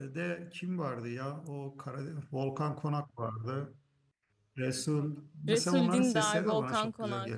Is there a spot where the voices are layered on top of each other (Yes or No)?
Yes